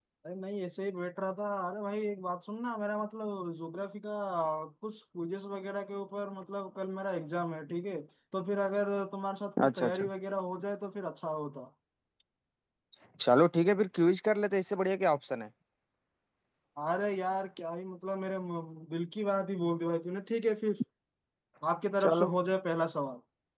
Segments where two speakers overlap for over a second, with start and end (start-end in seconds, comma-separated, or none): none